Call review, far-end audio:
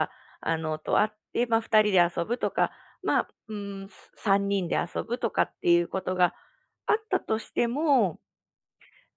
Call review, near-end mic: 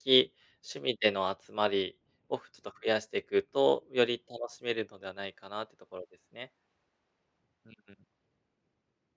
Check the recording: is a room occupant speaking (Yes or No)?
Yes